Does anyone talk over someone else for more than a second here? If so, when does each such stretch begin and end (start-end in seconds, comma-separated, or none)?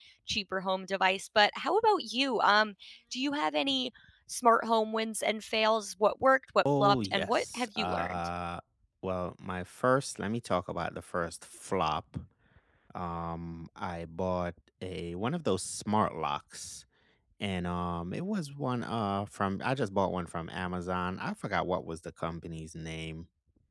6.8-8.3